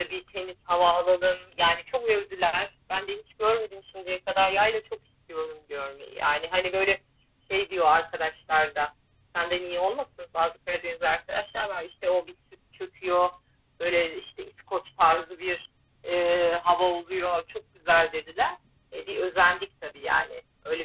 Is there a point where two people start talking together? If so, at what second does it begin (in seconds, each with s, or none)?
none